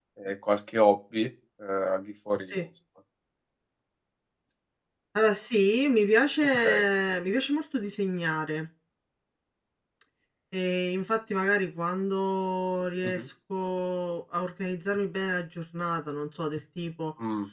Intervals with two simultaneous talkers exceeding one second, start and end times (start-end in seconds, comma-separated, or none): none